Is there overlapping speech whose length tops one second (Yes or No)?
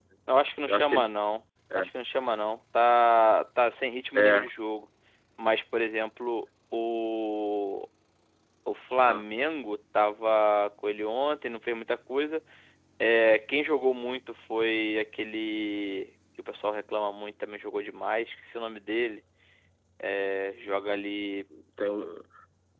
No